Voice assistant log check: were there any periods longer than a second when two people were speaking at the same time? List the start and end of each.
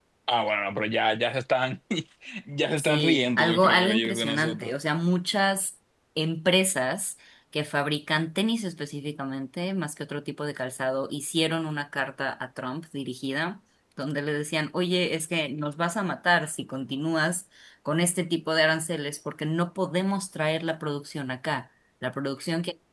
2.8-4.7

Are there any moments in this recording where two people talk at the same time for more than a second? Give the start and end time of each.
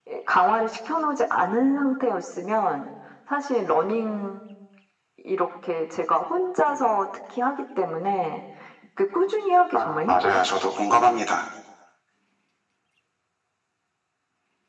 9.7-11.2

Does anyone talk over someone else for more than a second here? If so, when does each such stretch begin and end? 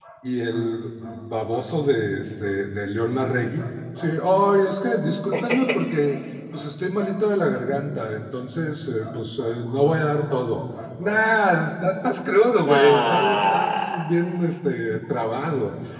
12.7-14.2

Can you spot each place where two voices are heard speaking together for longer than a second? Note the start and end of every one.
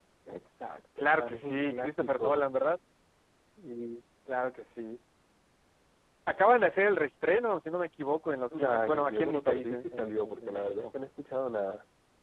1.0-2.5, 8.6-10.9

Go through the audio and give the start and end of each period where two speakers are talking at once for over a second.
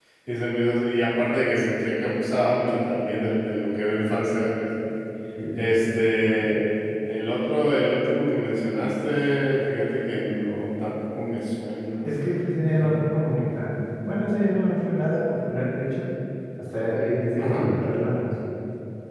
none

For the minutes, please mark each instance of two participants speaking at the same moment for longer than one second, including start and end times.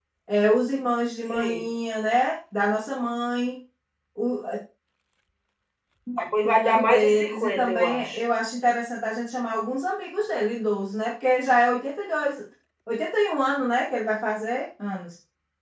6.6-8.2

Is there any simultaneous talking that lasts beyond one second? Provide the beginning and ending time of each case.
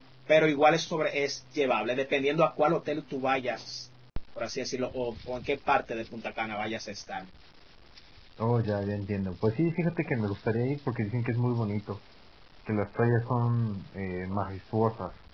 none

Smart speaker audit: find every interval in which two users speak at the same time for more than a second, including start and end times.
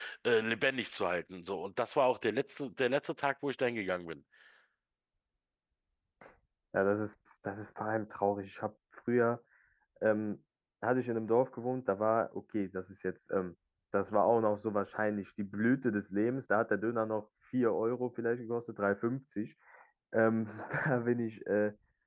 none

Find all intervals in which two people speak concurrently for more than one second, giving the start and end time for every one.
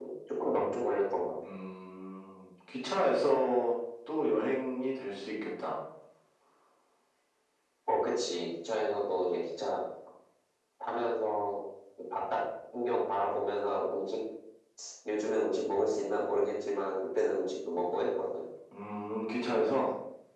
none

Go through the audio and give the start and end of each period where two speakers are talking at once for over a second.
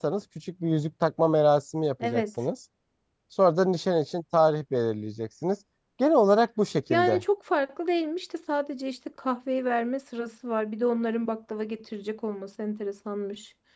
none

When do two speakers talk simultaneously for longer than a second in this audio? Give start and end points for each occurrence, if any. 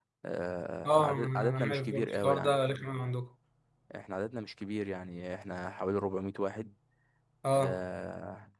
0.8-2.6

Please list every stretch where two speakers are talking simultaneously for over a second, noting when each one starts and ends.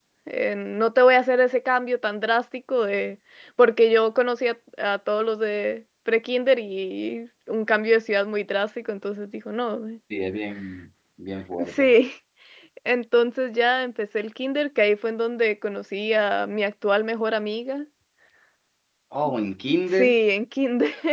none

